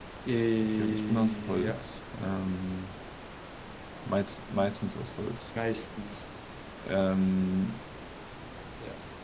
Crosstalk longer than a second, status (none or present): present